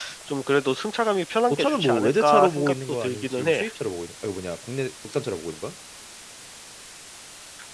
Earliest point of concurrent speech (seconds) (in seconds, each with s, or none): 1.5 s